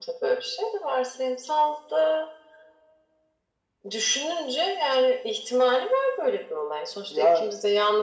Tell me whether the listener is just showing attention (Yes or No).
Yes